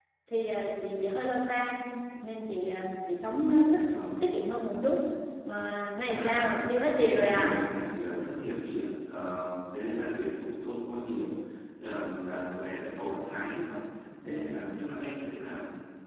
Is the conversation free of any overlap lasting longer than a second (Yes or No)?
No